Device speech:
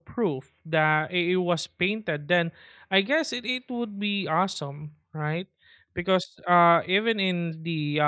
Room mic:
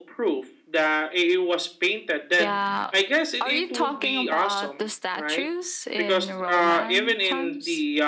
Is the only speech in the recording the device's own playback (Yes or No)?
No